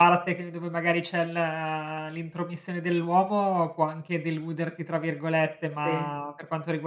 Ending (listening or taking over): listening